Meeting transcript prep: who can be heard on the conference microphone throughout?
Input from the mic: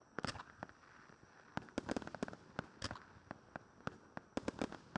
neither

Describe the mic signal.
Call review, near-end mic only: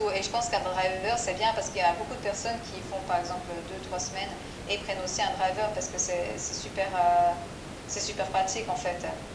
echo only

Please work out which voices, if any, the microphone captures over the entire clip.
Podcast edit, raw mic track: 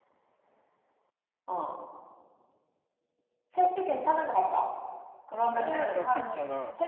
both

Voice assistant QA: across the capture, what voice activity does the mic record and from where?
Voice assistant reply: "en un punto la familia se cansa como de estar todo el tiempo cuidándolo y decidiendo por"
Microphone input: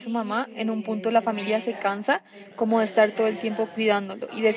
both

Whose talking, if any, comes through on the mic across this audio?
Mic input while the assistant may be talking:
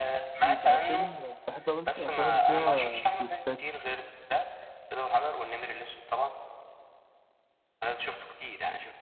both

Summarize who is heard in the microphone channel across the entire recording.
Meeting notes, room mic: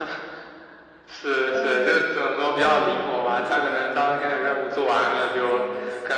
both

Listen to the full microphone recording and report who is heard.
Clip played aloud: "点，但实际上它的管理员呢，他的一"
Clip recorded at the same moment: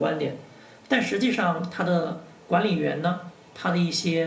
echo only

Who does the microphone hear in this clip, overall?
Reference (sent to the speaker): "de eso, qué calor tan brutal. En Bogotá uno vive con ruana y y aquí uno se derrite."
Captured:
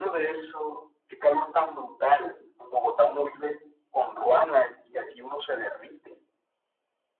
echo only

